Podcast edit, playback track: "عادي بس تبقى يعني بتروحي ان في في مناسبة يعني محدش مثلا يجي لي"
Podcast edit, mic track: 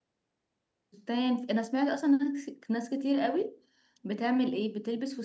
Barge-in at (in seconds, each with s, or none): 0.9 s